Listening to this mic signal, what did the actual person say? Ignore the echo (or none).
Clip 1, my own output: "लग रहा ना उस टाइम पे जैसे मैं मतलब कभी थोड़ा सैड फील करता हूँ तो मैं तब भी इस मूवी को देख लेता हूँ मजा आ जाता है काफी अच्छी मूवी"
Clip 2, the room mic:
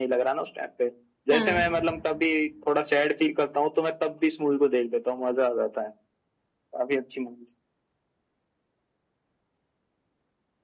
हाँ